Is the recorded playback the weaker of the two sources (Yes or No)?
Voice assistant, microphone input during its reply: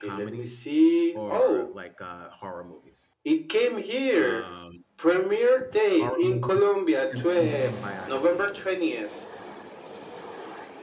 No